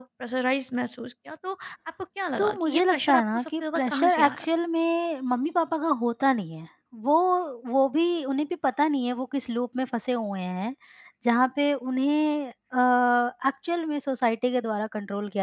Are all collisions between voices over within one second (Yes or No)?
No